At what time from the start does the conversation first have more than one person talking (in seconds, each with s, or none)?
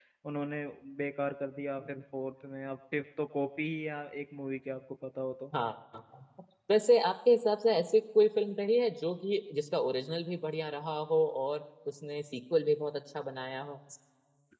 none